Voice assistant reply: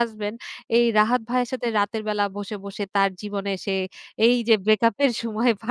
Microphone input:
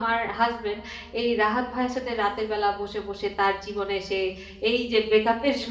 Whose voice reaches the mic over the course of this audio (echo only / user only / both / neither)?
echo only